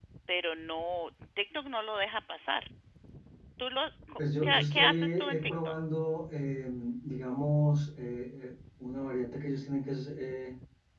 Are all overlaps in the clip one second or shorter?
No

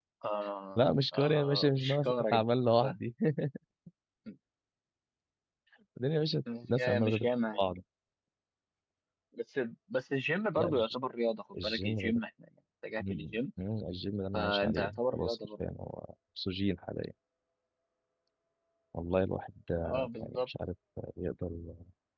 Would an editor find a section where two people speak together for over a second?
Yes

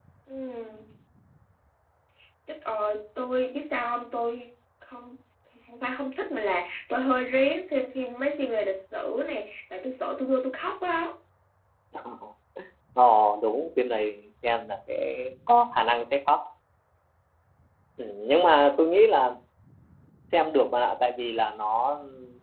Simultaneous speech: No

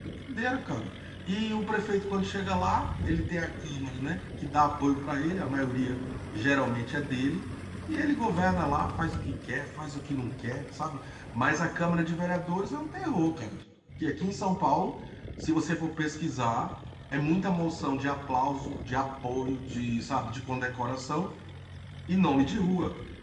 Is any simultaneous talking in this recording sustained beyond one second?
No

